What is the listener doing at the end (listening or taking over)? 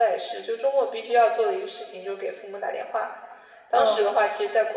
listening